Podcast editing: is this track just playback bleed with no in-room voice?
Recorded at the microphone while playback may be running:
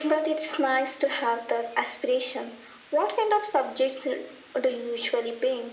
Yes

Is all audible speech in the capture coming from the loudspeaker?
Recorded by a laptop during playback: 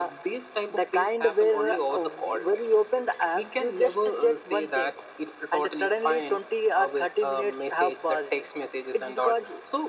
Yes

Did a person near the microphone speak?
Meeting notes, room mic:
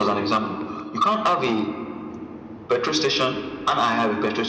No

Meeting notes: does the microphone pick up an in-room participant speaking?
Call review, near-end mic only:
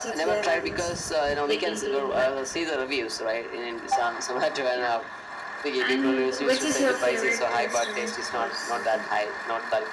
Yes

